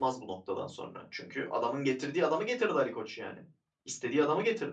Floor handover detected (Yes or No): Yes